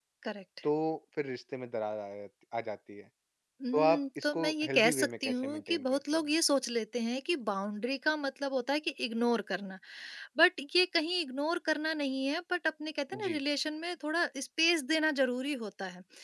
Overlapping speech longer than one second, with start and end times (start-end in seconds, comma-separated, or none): 3.7-6.2